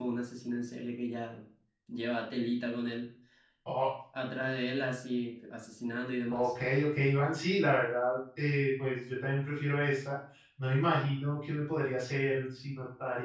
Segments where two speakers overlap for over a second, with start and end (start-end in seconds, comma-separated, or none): none